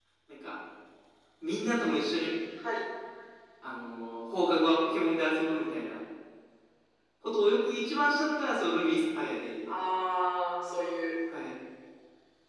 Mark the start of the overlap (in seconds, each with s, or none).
none